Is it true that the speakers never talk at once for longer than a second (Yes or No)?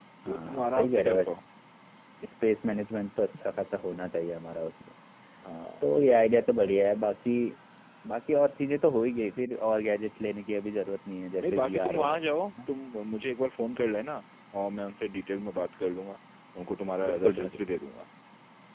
No